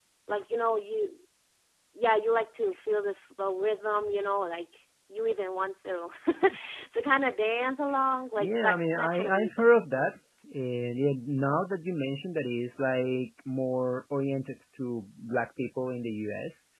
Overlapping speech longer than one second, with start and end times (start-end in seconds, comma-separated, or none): 8.4-9.7